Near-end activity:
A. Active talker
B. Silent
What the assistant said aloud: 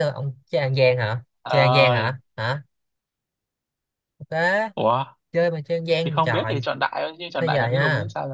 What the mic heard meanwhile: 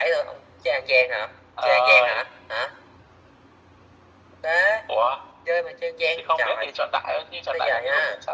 B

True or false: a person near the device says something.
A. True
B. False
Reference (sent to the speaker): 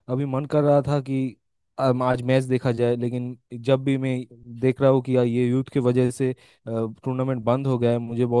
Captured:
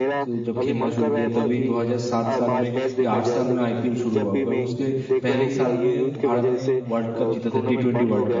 A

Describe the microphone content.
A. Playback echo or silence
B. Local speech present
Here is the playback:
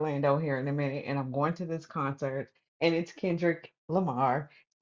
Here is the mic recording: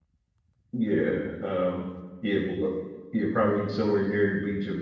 B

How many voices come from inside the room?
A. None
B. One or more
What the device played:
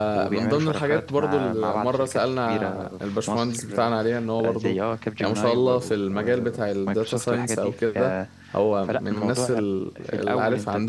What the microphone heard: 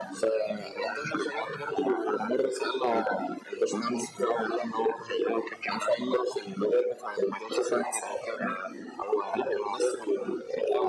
A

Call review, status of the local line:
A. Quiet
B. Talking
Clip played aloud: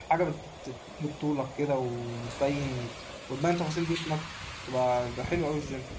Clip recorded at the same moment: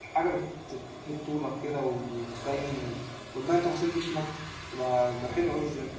A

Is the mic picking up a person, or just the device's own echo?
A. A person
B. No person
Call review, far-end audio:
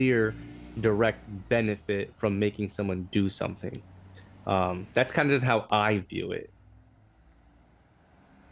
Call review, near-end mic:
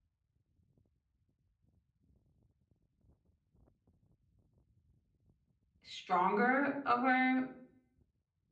A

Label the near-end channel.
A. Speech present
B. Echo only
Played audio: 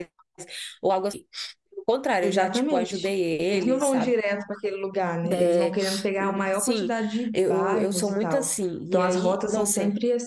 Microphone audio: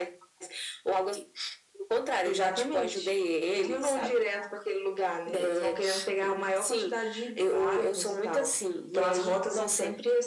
B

